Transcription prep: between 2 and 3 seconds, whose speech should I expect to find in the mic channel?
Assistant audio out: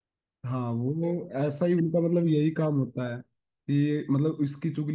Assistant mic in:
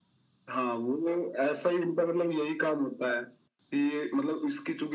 echo only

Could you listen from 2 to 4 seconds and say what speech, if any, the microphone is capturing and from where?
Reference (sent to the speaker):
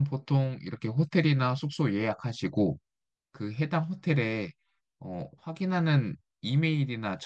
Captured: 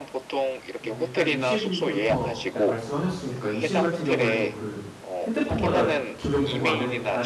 both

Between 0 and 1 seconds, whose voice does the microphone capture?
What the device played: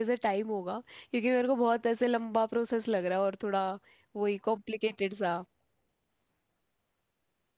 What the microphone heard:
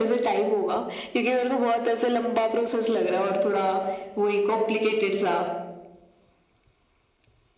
echo only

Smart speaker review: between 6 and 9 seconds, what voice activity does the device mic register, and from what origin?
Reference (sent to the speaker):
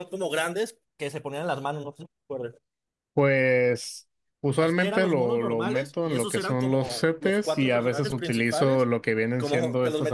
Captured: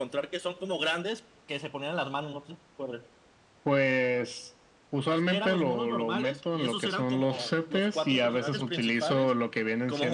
echo only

